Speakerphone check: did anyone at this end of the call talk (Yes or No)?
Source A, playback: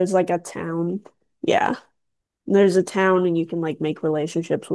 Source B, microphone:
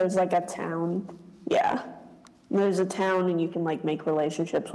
No